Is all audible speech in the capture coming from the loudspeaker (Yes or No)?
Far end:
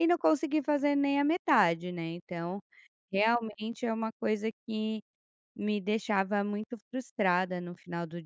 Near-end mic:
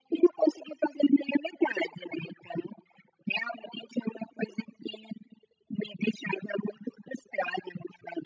Yes